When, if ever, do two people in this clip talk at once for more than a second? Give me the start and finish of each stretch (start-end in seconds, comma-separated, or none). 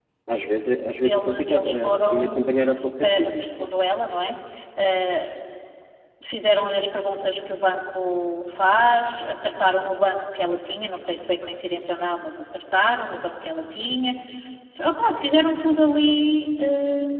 1.0-3.7